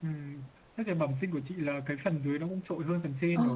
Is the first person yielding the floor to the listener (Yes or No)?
Yes